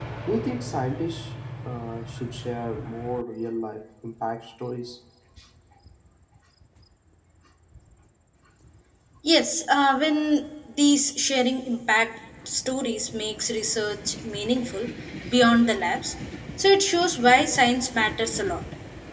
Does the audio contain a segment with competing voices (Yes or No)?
No